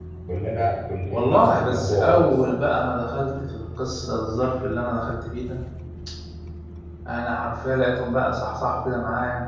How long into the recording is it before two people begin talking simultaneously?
1 s

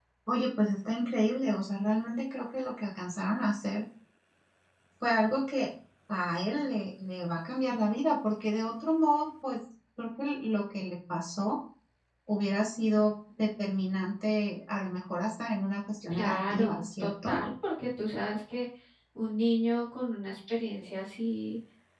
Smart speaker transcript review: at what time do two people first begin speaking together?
16 s

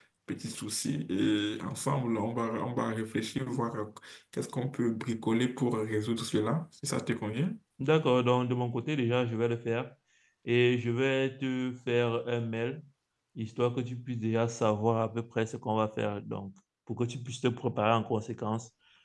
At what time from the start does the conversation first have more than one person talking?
none

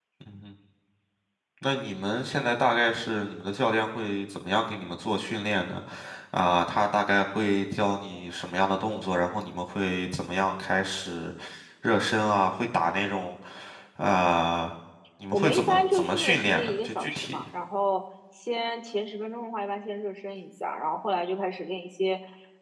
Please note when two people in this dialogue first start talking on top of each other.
15 s

